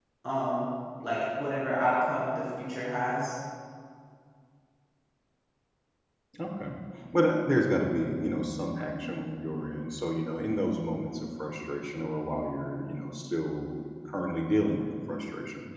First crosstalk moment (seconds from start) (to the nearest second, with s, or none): none